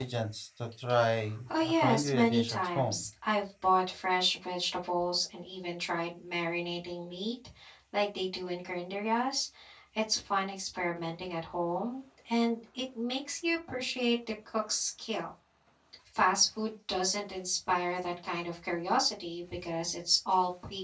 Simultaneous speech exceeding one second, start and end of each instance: 1.6-3.0

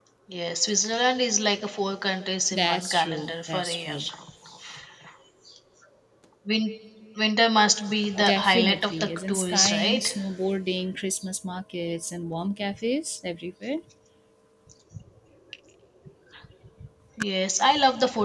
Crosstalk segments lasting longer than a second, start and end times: 2.5-4.0, 8.3-10.0

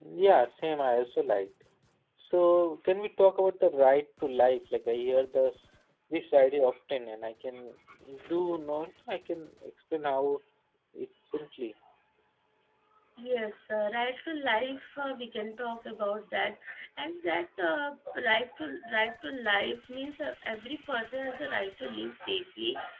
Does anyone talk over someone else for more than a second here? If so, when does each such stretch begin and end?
none

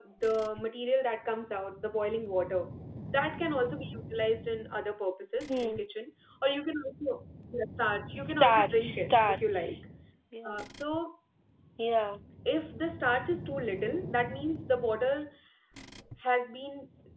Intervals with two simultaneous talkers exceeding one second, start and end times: 8.2-9.8

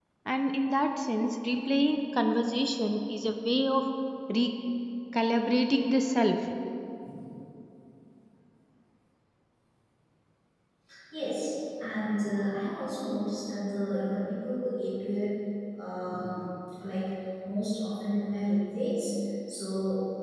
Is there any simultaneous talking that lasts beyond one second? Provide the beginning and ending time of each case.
none

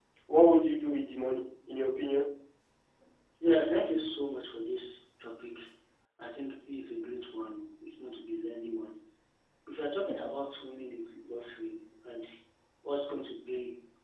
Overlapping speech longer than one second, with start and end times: none

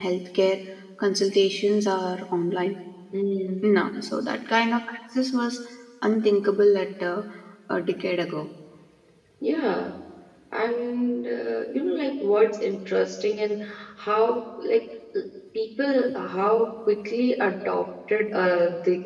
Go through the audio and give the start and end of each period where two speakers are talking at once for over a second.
none

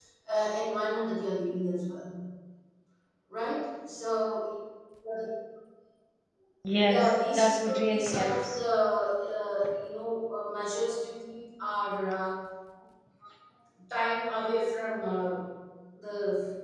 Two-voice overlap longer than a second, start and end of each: 6.8-8.3

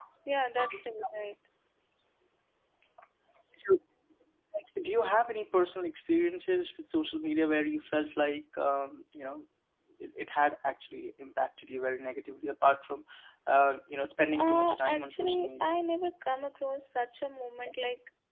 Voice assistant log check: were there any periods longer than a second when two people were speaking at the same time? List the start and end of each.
14.4-15.8

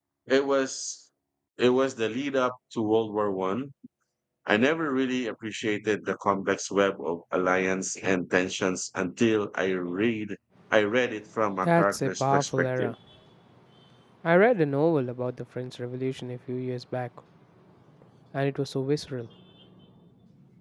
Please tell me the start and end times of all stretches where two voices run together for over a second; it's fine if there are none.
11.6-12.9

